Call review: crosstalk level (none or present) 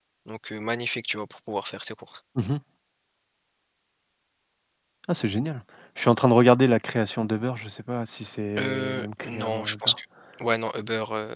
present